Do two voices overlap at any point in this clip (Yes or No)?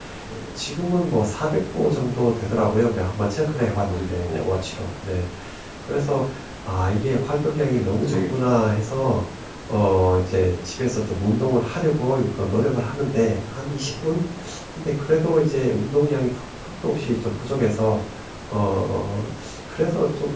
Yes